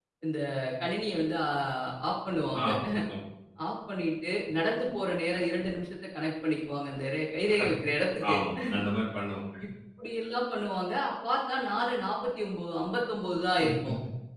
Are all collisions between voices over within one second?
Yes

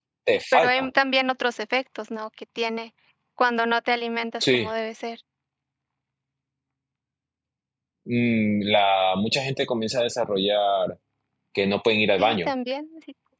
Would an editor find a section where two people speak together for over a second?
No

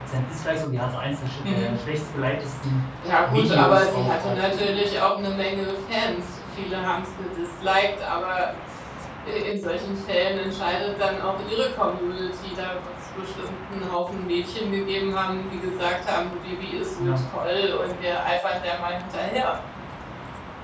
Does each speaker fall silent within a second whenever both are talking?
No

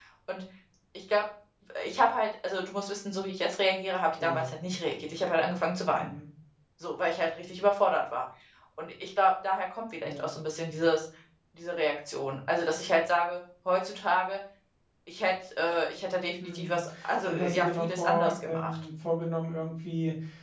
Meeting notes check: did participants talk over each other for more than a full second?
Yes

